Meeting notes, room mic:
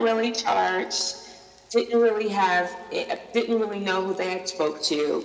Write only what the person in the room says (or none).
none